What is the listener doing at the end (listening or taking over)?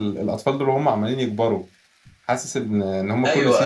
listening